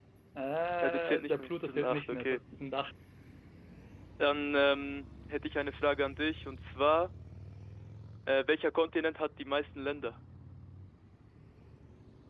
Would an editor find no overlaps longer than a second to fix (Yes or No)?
No